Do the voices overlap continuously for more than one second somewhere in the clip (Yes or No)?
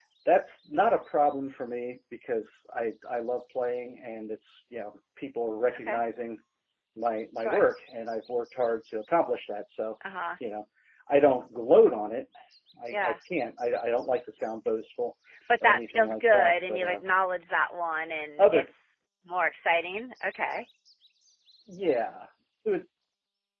Yes